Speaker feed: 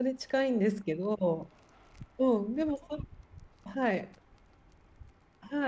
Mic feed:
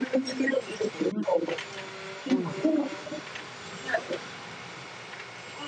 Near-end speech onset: 2.3 s

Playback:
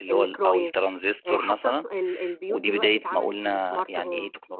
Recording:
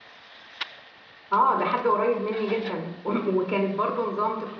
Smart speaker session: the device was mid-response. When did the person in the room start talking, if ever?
1.3 s

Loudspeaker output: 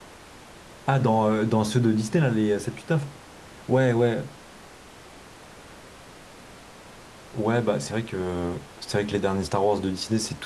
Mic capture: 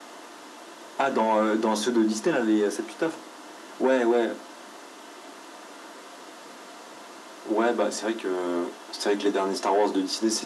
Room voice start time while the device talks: none

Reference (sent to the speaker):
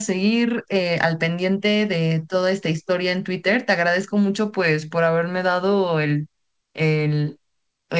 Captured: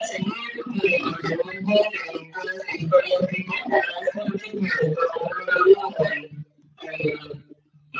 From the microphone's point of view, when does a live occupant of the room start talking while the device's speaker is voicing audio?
none

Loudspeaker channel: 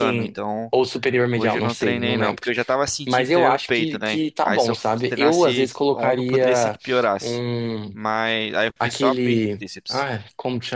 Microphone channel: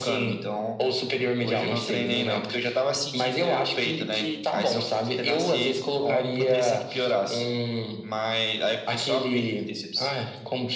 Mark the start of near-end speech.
none

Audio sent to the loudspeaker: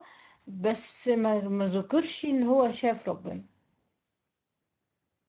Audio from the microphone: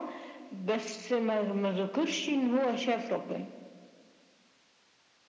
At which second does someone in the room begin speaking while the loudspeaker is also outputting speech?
none

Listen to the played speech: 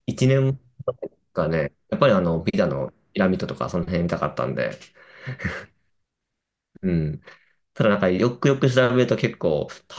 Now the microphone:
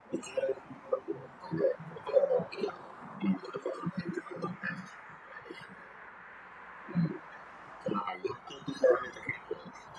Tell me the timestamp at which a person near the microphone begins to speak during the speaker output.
none

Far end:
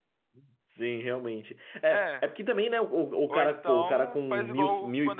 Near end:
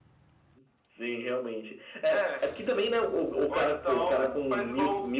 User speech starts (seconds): none

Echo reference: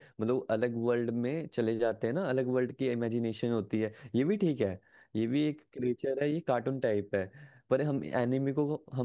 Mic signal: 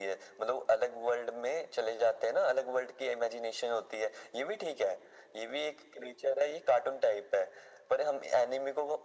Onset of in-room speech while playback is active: none

